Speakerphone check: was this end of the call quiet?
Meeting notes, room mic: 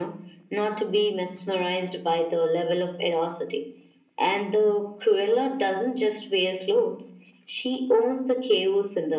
Yes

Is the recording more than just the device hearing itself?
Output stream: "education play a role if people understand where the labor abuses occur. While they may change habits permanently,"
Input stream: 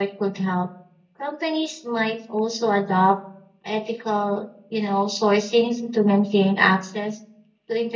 Yes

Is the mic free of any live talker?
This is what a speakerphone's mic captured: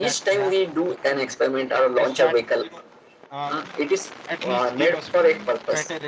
No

